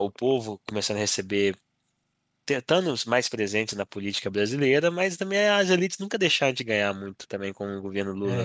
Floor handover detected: Yes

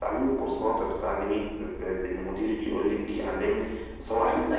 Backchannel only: No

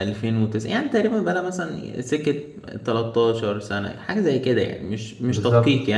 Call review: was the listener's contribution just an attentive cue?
Yes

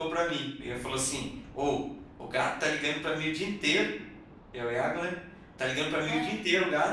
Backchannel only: Yes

